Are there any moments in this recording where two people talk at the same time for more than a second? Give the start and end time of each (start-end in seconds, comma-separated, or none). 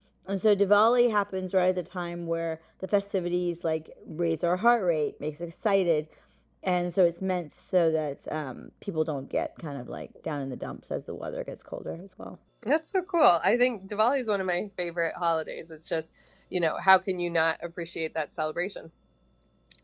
none